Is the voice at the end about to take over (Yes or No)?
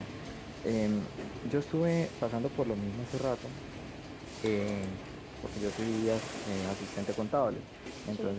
No